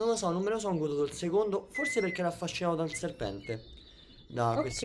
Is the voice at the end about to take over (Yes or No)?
No